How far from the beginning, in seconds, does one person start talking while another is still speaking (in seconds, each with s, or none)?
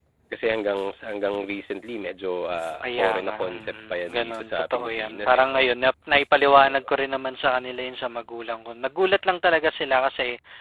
2.8 s